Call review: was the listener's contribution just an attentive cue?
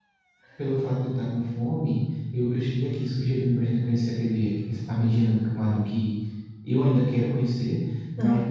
Yes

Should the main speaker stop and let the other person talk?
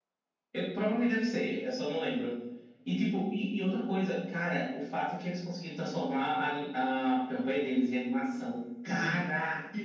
Yes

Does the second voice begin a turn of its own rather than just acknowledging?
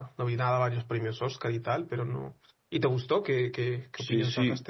Yes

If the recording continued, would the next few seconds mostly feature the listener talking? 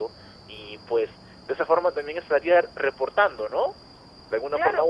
Yes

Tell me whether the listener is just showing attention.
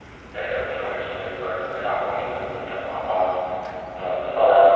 Yes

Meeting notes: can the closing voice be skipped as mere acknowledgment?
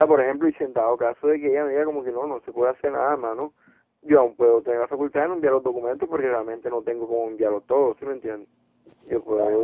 No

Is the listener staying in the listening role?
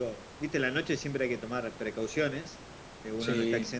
Yes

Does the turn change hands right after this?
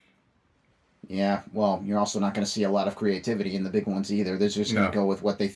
No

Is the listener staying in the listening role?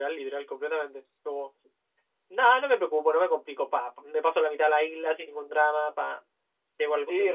No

